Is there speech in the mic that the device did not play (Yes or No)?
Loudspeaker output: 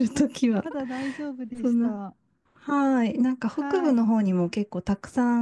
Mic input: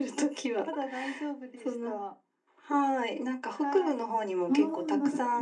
Yes